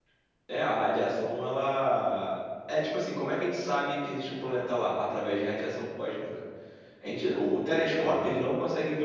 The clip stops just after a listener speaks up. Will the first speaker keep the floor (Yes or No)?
Yes